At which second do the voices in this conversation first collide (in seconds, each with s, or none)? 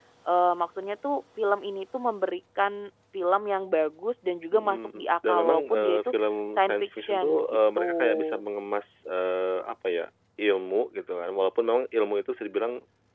4.5 s